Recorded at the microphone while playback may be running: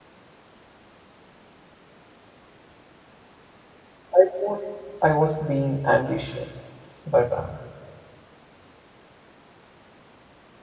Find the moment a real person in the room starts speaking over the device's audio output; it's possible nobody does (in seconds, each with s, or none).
4.1 s